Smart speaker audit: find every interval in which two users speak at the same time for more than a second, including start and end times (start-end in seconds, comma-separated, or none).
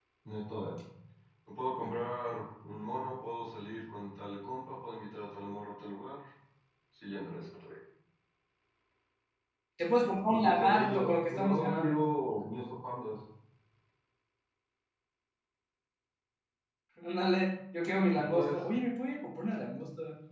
10.3-12.0